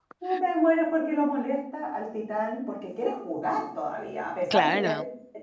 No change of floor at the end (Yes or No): Yes